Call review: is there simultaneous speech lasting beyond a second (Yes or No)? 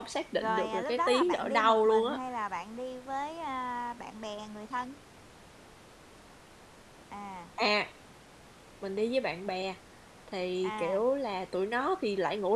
Yes